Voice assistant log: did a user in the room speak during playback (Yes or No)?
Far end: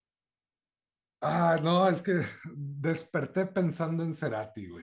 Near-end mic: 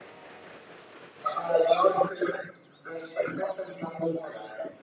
No